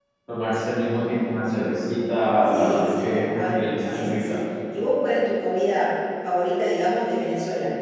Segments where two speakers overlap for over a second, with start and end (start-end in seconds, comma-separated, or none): 2.4-4.4